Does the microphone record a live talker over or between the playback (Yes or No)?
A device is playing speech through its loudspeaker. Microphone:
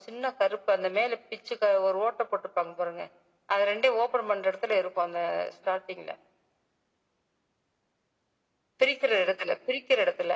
No